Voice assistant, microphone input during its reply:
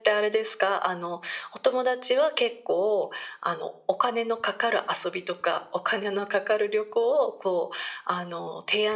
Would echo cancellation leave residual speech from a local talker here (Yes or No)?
No